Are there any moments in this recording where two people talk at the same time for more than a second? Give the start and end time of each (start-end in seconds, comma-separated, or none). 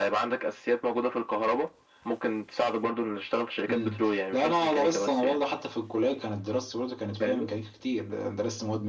3.7-5.4